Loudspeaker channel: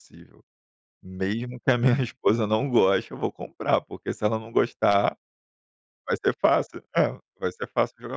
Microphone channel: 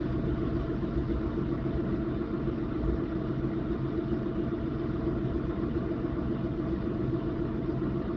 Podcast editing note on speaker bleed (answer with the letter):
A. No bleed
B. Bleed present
A